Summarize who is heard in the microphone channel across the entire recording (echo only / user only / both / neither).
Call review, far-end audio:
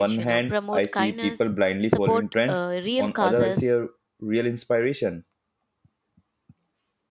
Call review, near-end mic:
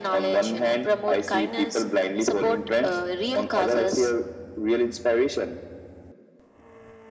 echo only